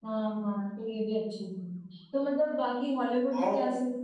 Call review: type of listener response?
listening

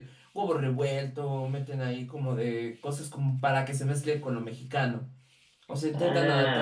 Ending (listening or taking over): taking over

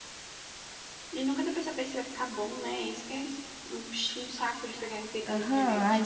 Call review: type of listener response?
taking over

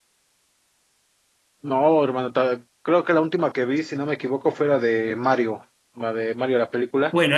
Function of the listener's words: taking over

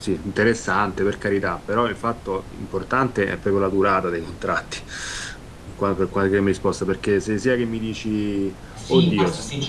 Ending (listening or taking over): taking over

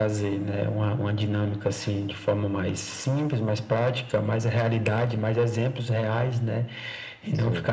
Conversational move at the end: listening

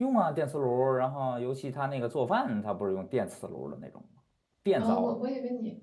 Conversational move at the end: taking over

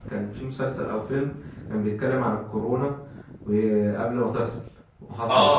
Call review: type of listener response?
taking over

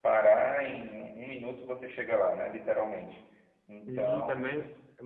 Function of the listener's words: taking over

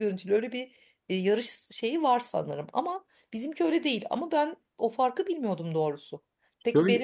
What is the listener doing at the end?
listening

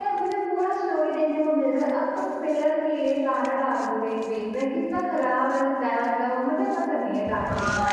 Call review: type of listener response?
taking over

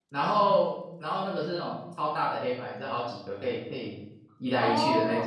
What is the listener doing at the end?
taking over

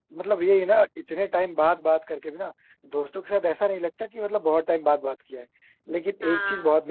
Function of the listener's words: listening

